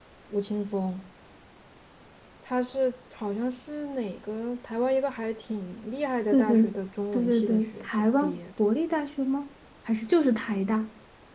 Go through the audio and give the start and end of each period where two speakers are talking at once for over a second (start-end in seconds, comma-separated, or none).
7.1-8.6